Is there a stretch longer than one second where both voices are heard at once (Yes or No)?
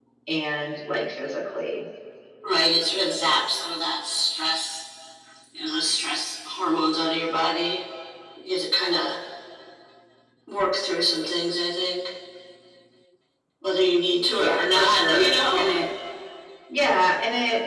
Yes